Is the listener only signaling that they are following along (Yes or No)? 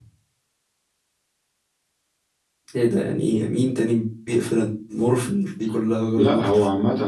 No